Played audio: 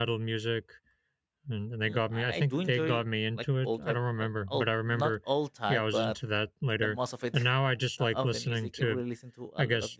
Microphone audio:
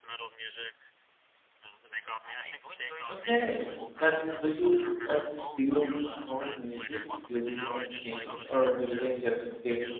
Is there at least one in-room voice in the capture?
Yes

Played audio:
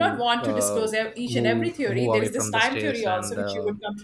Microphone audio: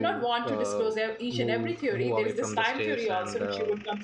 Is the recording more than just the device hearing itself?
No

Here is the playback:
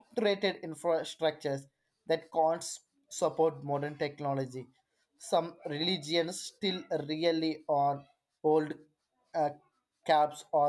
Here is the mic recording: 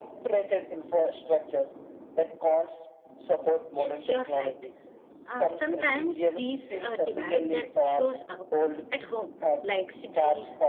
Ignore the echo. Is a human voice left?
Yes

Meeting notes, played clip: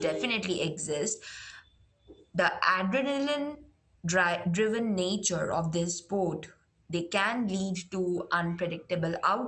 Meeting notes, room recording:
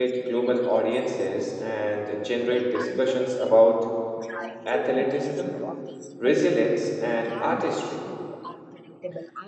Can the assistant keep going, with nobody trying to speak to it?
No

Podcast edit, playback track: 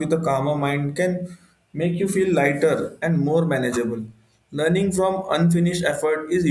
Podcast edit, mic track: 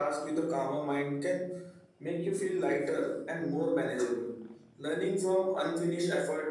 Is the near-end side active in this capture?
No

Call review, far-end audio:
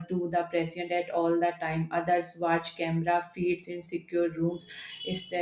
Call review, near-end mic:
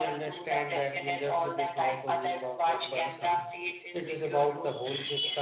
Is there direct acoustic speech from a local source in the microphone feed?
Yes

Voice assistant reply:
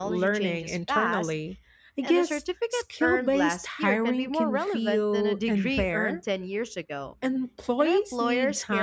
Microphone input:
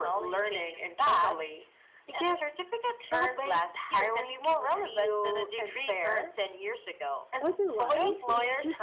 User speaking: Yes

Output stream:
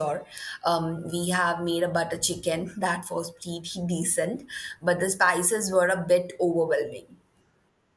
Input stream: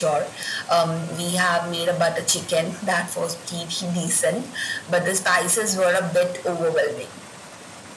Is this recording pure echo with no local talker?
Yes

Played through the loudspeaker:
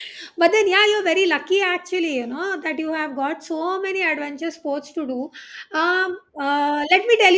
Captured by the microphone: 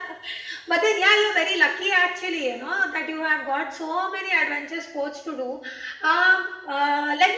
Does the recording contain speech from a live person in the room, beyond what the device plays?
No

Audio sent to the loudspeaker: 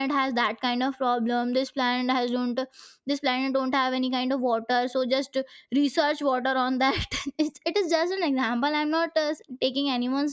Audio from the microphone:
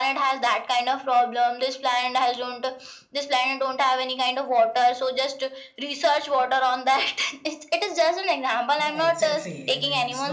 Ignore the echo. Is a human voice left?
Yes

